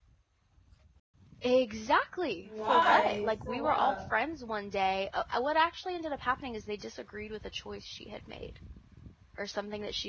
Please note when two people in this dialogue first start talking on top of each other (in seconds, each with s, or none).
2.4 s